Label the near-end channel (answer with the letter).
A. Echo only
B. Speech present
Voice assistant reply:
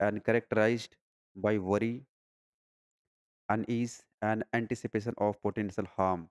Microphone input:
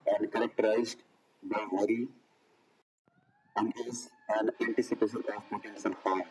A